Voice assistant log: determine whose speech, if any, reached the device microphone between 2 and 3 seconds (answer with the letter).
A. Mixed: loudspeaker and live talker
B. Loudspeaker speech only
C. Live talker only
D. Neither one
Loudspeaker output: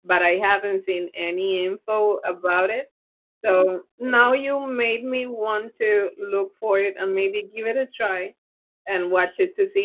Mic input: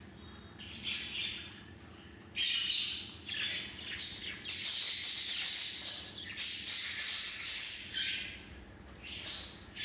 D